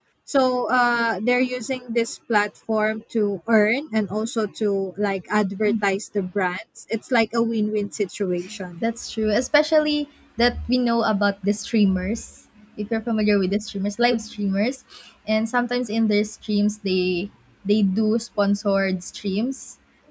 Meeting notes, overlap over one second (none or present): none